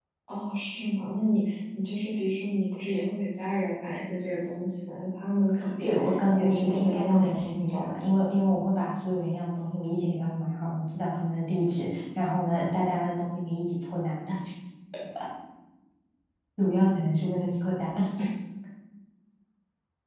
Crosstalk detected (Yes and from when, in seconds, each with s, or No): Yes, from 5.6 s